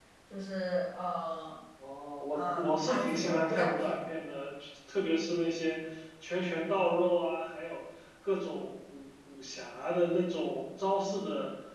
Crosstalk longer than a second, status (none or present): present